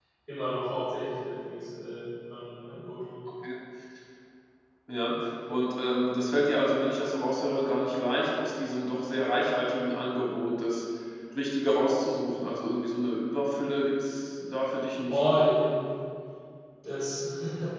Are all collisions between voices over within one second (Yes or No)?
Yes